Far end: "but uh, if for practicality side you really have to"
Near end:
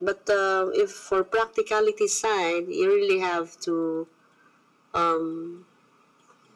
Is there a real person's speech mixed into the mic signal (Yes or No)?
No